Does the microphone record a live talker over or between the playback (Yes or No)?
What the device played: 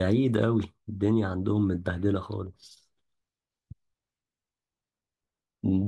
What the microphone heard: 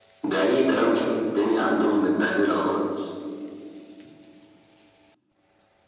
No